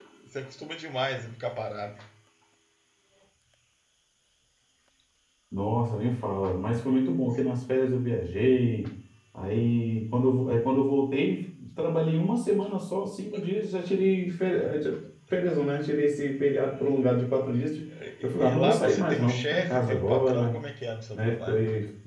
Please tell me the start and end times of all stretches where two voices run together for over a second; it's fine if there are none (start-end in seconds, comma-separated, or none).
18.2-20.6